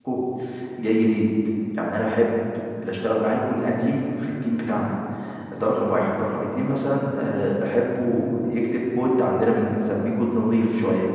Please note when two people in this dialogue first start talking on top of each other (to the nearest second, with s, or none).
none